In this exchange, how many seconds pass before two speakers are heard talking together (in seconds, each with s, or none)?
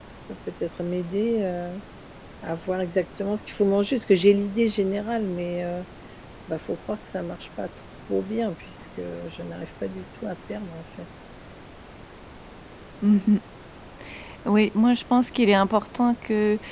none